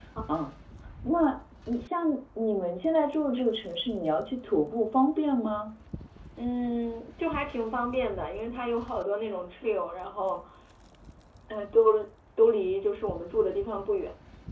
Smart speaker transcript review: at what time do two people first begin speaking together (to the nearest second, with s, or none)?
none